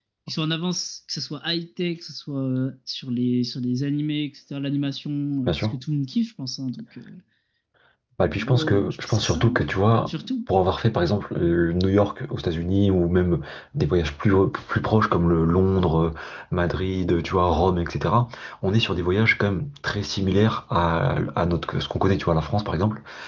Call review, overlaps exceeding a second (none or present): present